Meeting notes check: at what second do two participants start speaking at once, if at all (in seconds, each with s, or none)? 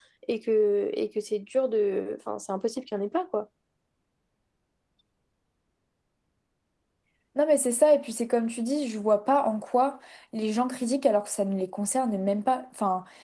none